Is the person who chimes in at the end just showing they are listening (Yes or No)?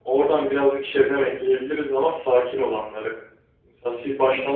Yes